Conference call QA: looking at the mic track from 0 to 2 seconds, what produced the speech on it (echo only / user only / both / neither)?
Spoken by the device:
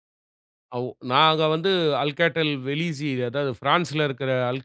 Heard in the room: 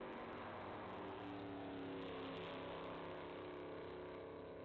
neither